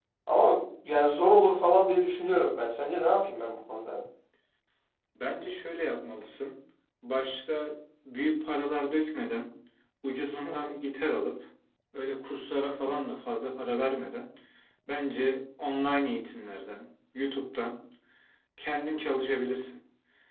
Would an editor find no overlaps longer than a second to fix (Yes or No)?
Yes